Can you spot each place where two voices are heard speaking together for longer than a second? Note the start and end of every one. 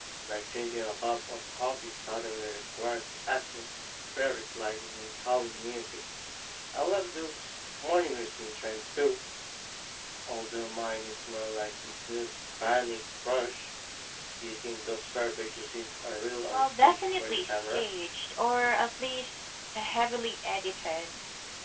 16.5-17.9

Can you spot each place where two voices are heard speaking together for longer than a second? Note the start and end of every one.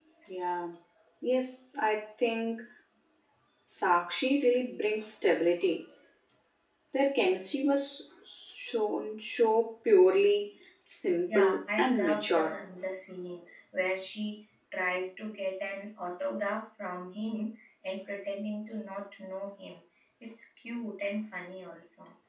11.3-12.6

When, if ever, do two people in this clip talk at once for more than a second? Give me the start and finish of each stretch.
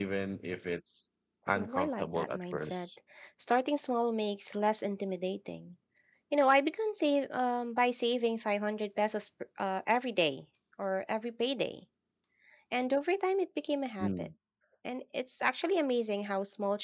1.5-2.9

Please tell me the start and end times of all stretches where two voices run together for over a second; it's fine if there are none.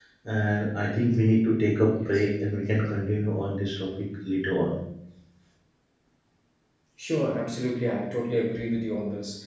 none

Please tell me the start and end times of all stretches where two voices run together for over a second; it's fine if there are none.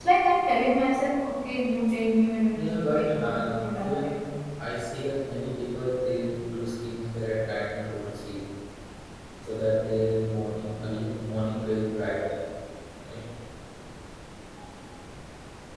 2.5-4.2

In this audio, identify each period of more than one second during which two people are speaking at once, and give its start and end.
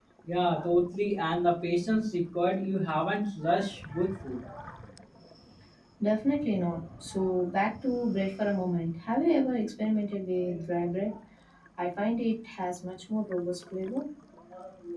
none

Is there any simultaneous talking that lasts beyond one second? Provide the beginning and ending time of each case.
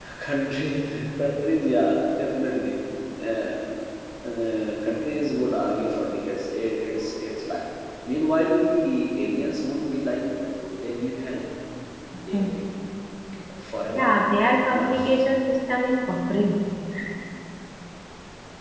none

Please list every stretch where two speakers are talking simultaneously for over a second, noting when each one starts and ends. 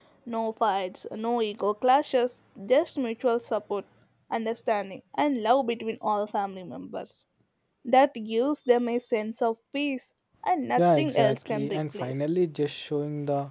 10.8-12.2

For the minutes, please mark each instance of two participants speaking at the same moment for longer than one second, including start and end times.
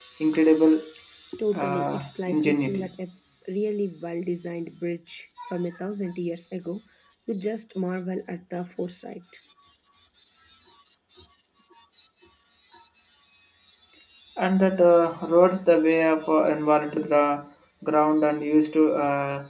1.6-2.9

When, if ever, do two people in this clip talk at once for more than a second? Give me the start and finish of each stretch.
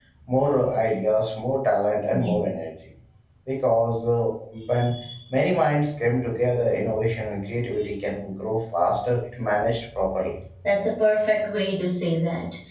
none

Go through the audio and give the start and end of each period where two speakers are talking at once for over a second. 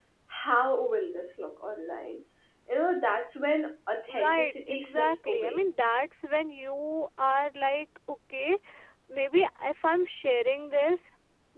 4.1-5.6

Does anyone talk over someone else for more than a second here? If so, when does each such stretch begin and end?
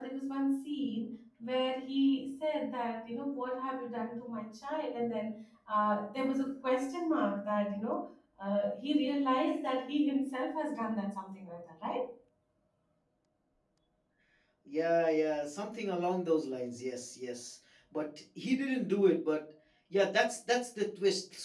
none

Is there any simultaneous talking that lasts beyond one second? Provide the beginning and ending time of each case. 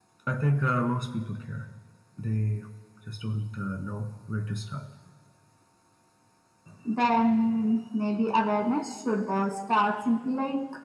none

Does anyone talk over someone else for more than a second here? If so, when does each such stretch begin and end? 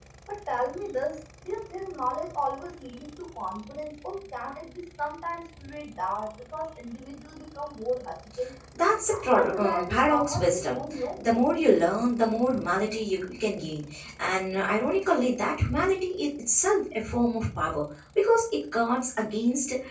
9.1-11.2

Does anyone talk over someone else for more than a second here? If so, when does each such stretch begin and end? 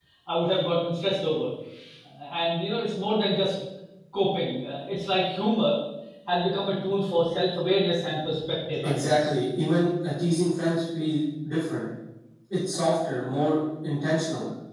none

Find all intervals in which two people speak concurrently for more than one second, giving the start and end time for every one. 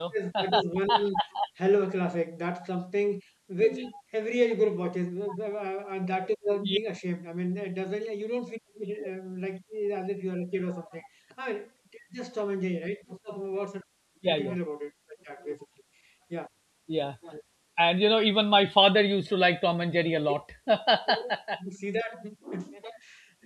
none

